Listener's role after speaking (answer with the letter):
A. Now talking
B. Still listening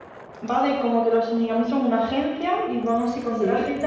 B